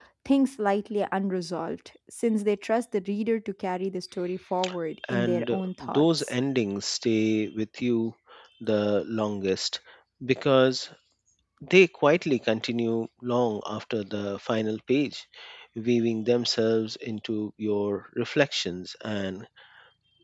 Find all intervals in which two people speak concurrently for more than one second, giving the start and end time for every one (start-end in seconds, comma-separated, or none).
5.1-6.3